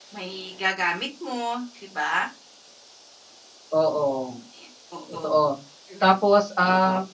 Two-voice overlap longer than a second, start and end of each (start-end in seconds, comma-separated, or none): none